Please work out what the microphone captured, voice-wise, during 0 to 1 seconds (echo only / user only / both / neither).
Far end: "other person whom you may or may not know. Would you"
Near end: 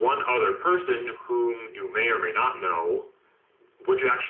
echo only